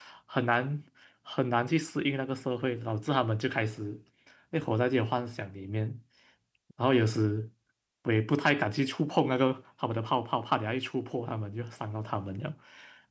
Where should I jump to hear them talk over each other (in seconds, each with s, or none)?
none